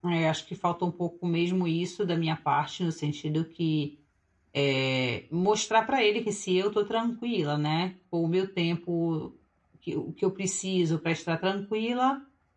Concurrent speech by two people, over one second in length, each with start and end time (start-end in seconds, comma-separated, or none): none